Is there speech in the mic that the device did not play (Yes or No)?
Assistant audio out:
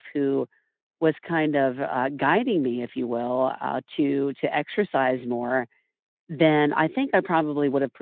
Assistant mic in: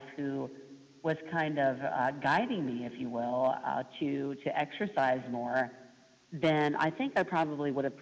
No